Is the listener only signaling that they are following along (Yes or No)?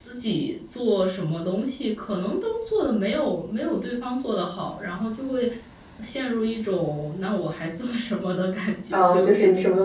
No